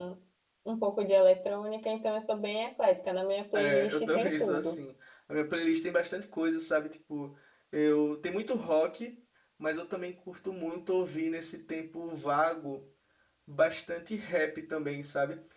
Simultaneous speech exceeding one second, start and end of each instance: 3.5-4.8

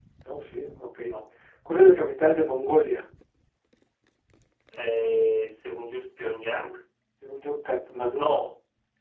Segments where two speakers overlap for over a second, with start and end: none

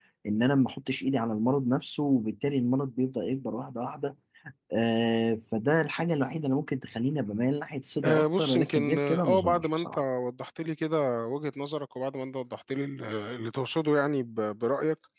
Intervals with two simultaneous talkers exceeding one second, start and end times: 8.0-10.0

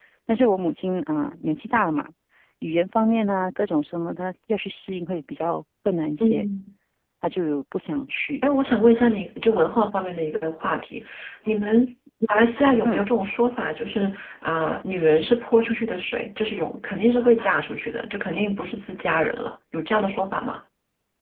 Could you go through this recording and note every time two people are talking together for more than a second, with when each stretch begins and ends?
none

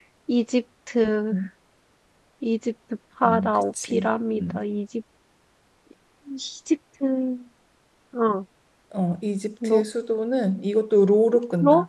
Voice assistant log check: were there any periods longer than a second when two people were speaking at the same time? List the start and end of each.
3.3-4.6

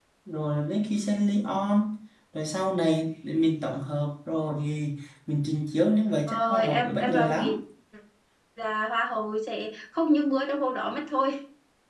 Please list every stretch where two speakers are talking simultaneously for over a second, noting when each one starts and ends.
6.3-7.5

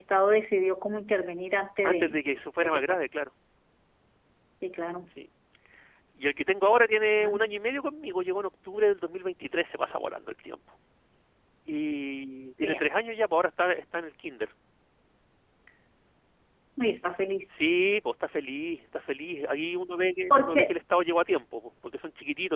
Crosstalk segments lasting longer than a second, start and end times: none

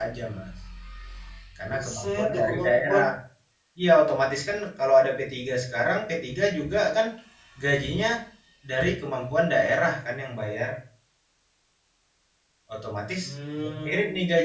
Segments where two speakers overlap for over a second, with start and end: 1.7-3.0

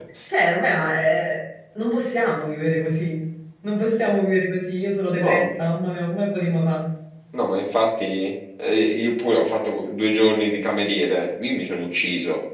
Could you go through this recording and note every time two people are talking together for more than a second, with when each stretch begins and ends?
none

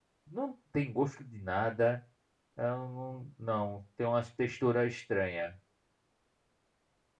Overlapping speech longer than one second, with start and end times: none

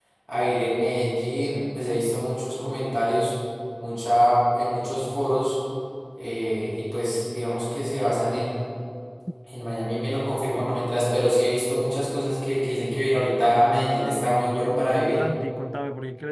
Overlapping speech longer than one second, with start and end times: 13.6-15.2

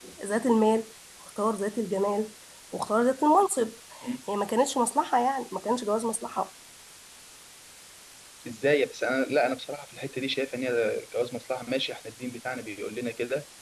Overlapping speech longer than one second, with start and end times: none

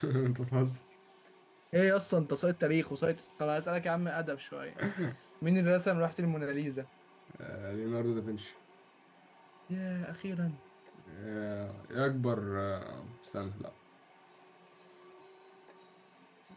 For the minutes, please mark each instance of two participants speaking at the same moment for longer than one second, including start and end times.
none

